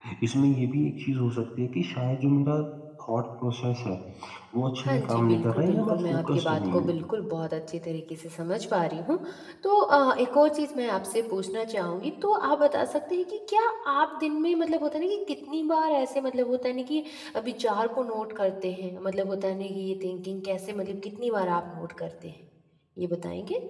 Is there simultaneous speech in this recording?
Yes, from 4.8 s

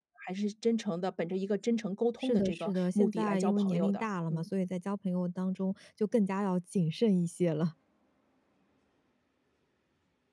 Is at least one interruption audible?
Yes, from 2.2 s

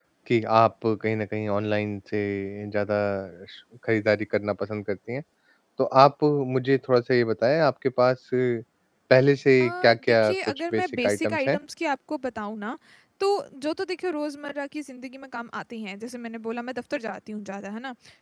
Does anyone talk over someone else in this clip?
Yes, from 9.6 s

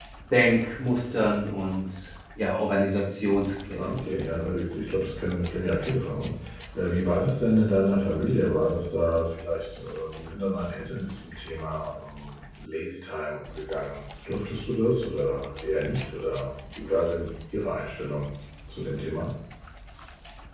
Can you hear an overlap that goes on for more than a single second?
No

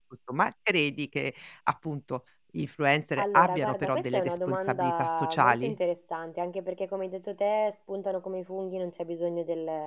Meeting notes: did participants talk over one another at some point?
Yes, from 3.2 s

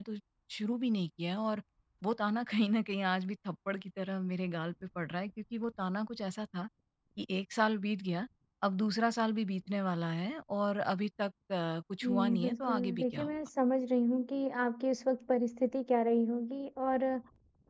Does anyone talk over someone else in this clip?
Yes, from 12.0 s

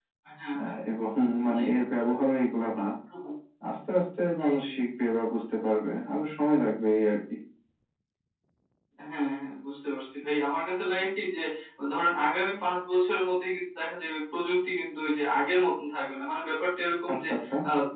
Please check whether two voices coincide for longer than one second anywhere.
No

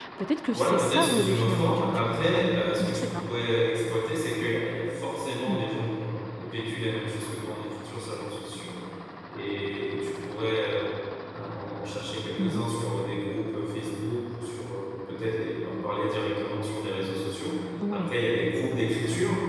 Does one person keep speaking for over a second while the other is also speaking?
Yes, from 0.5 s

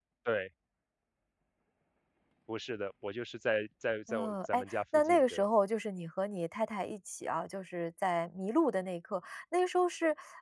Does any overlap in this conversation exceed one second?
Yes, from 4.1 s

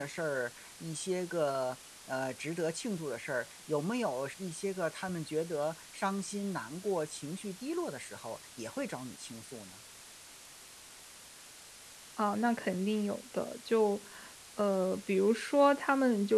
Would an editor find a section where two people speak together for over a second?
No

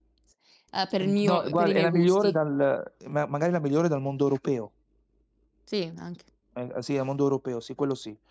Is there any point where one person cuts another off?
Yes, from 1.0 s

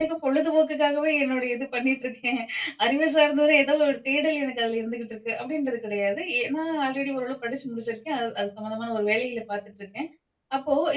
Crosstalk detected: No

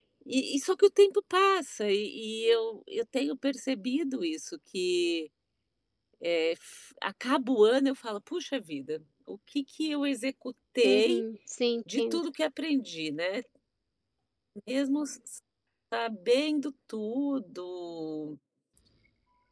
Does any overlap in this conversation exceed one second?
No

